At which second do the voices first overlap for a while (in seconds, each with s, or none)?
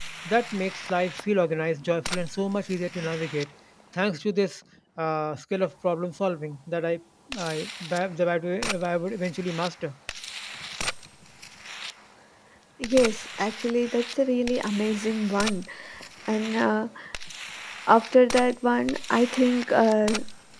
none